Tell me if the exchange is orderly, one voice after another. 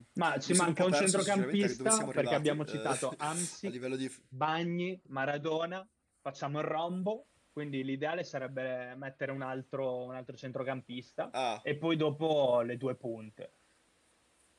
No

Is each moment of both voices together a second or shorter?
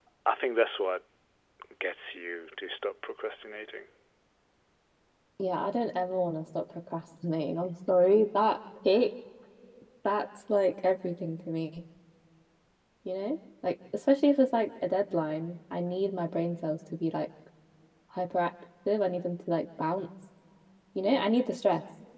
Yes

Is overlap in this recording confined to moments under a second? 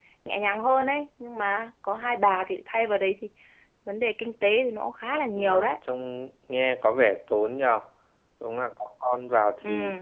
Yes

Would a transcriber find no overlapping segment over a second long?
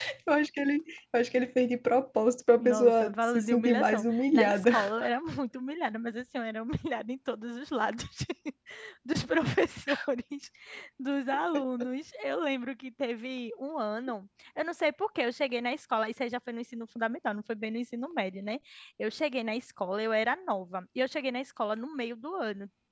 No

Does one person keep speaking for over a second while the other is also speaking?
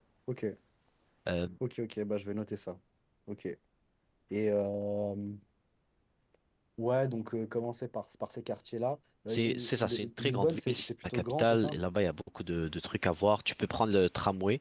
Yes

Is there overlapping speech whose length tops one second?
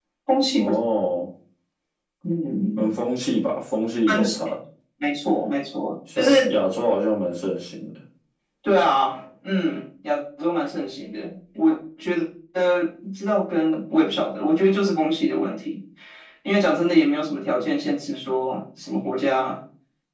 No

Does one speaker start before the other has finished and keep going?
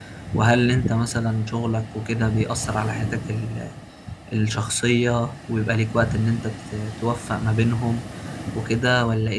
No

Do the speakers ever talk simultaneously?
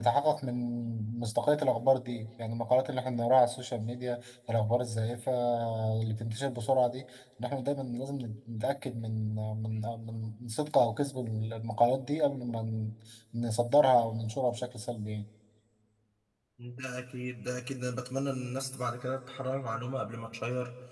No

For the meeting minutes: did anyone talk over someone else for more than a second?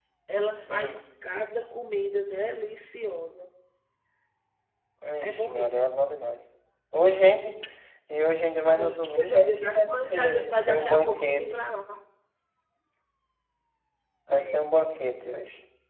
Yes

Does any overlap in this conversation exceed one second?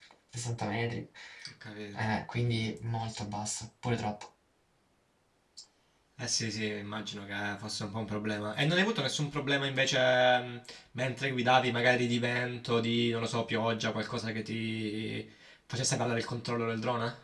No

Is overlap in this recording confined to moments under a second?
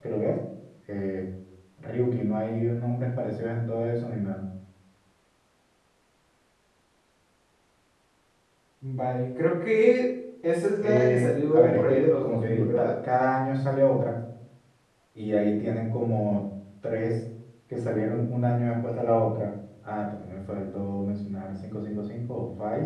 No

